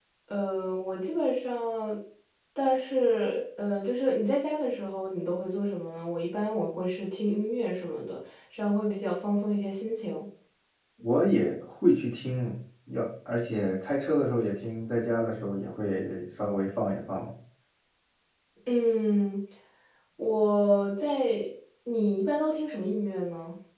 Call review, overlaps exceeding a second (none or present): none